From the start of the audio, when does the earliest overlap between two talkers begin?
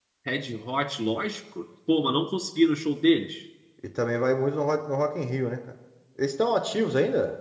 none

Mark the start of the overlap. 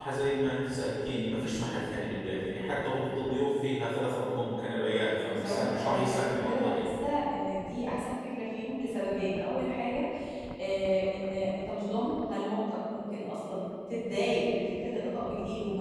5.3 s

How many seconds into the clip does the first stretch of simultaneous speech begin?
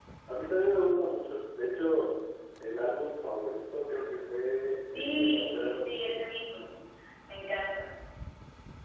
4.9 s

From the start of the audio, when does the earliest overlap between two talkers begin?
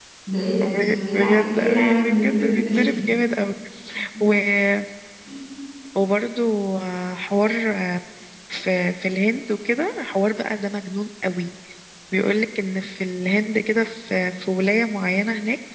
0.6 s

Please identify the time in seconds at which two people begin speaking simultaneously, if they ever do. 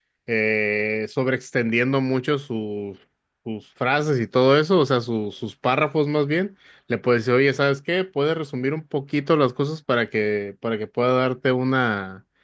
none

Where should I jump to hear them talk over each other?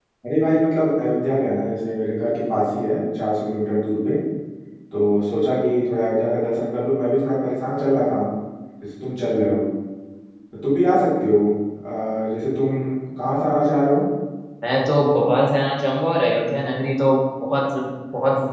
none

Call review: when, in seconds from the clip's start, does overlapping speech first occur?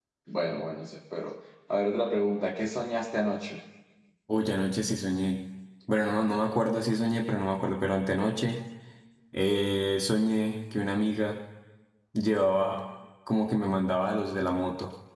none

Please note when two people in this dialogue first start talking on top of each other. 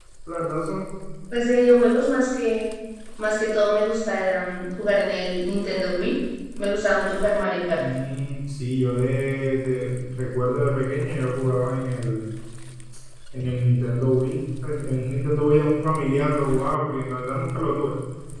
none

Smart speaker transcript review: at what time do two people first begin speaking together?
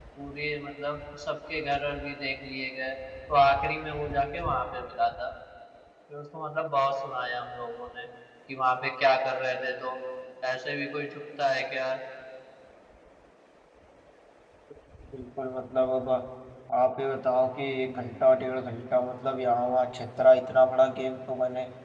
none

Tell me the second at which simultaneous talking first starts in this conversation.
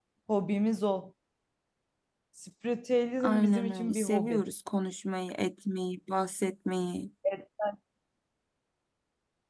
3.2 s

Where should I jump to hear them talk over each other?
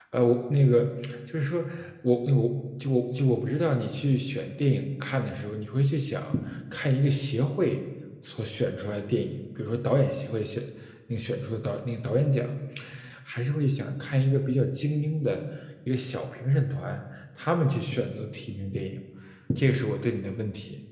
none

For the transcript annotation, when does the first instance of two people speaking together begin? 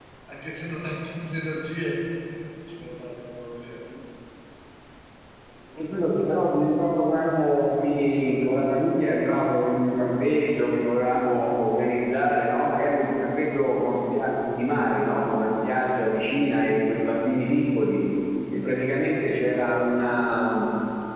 none

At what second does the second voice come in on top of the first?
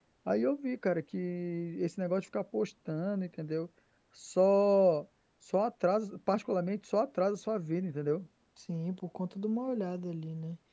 none

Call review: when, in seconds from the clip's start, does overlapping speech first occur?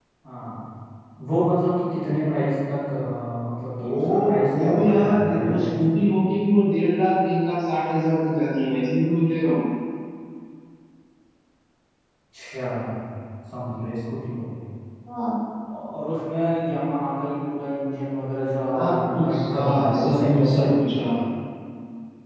3.8 s

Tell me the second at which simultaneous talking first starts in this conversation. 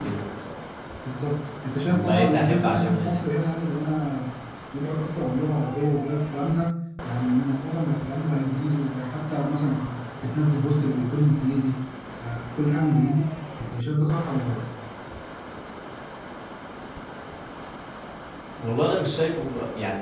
1.8 s

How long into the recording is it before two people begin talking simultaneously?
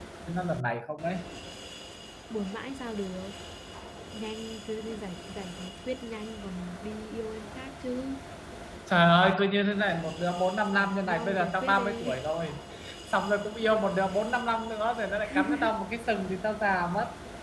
10.7 s

